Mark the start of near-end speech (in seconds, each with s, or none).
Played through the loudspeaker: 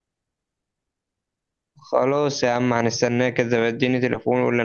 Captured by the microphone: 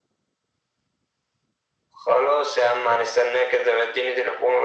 none